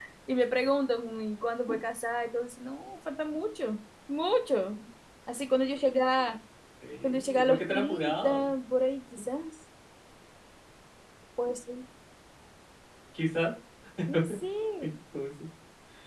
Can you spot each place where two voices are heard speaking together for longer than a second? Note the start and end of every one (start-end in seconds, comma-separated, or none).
7.0-8.5